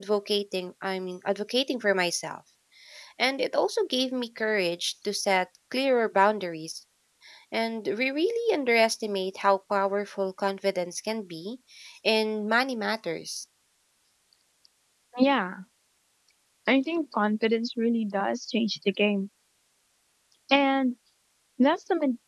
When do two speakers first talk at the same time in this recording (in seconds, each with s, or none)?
none